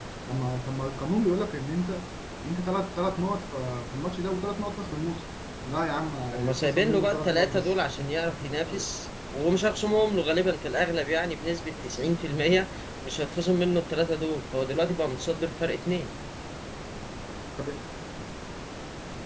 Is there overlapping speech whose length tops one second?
Yes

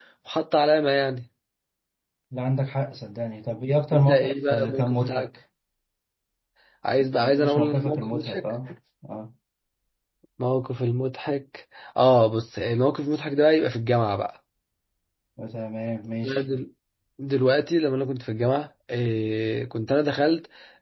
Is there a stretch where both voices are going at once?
Yes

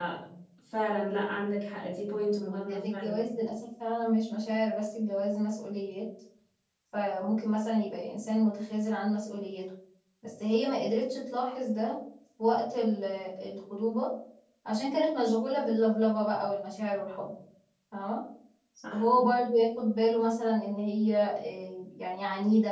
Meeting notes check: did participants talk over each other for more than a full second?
No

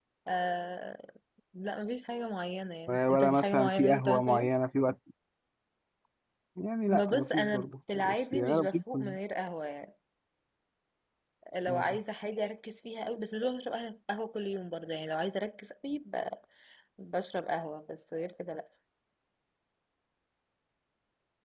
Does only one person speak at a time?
No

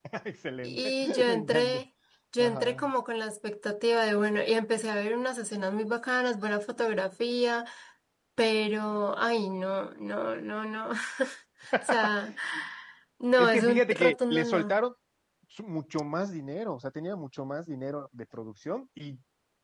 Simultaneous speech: Yes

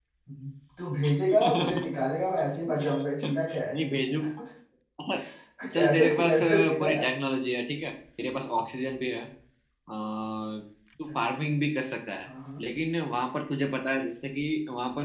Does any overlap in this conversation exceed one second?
Yes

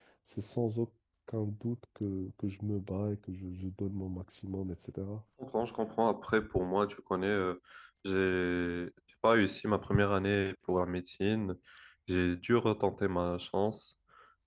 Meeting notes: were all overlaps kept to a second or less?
Yes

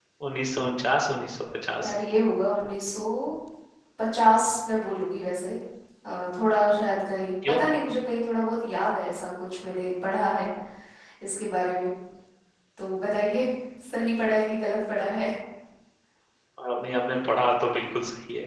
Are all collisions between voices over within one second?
Yes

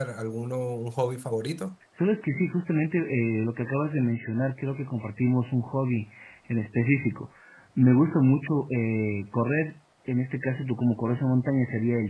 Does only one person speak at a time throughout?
Yes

